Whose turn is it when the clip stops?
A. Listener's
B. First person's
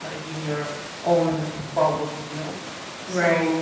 B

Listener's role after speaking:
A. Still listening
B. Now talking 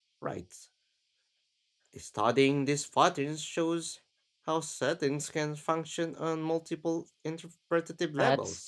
B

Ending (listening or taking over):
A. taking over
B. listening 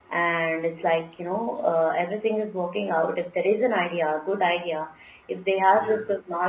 B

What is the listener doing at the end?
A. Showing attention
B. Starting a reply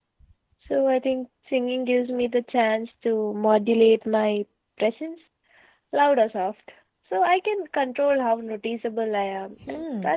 B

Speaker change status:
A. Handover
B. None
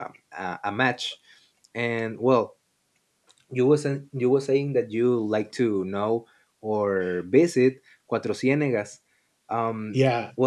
A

